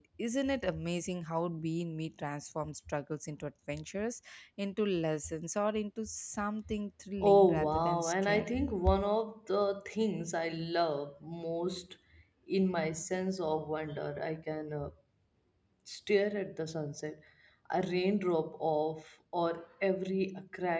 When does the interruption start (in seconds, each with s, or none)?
7.2 s